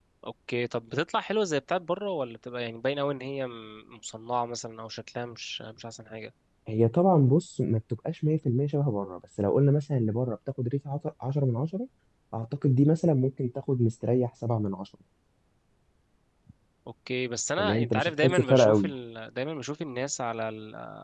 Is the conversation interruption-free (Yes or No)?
No